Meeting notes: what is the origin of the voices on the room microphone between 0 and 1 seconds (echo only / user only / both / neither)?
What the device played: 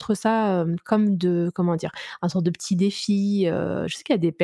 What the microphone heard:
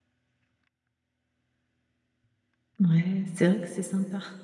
neither